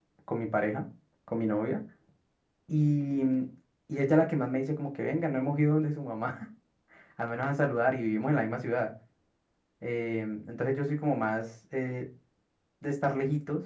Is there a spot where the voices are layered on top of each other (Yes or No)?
No